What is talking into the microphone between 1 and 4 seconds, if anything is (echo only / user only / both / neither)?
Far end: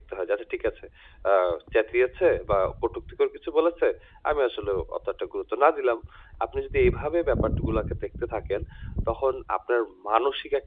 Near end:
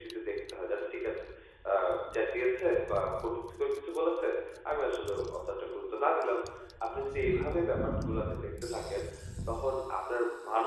echo only